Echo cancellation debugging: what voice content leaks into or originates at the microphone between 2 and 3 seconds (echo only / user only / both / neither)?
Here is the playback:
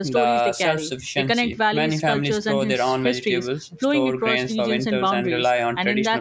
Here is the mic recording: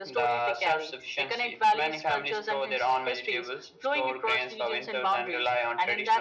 echo only